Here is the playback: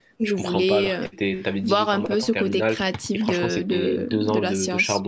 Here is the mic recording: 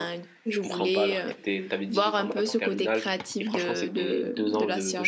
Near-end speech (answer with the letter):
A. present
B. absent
B